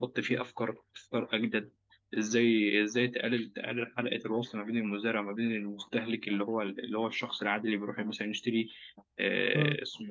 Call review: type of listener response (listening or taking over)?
listening